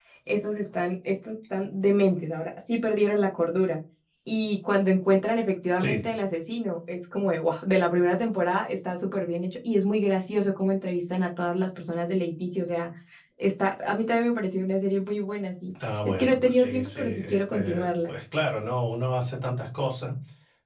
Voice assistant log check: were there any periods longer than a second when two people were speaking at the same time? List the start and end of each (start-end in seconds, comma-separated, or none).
16.1-18.1